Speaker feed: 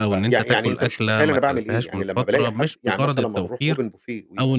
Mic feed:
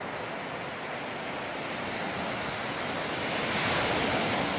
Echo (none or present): none